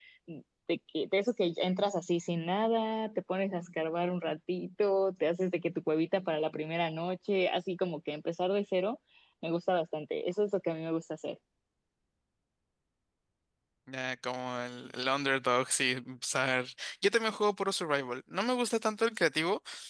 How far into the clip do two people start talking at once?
none

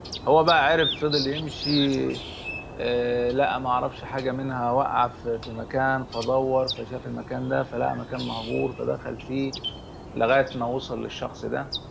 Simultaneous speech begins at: none

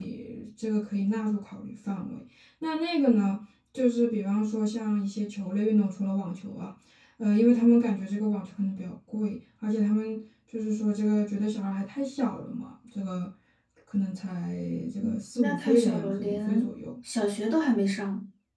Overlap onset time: 15.0 s

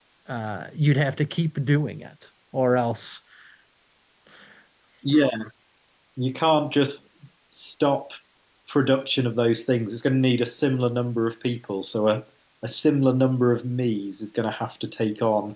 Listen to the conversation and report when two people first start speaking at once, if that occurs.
none

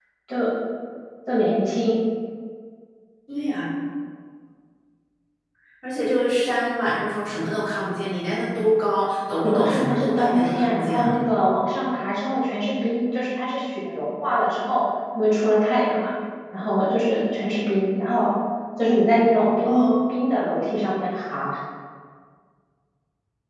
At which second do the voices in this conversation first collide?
9.4 s

